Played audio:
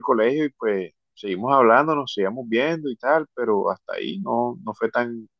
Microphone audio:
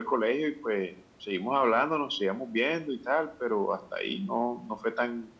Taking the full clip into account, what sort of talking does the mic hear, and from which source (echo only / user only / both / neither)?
echo only